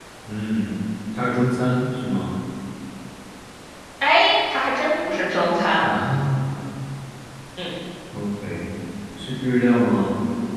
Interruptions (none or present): none